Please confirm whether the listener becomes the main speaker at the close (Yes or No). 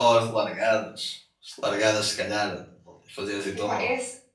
Yes